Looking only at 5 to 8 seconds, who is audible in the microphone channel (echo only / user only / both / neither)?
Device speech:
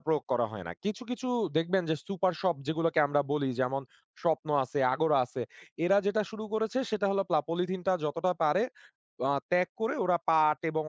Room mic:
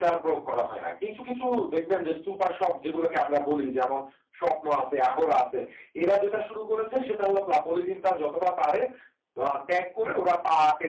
echo only